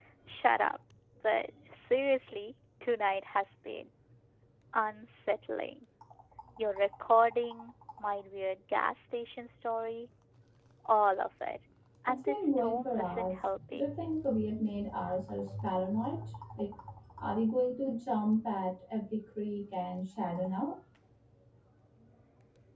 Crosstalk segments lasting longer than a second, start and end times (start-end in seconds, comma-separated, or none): 12.1-13.8